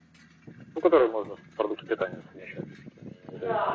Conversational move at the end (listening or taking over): taking over